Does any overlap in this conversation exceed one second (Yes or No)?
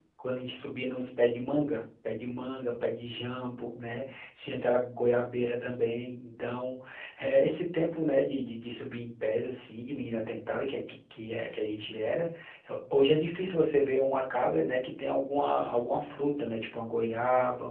No